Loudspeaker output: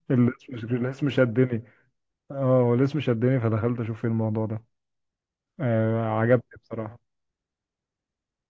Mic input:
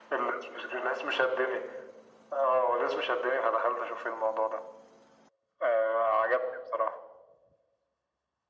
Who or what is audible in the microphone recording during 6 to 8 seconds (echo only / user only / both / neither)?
echo only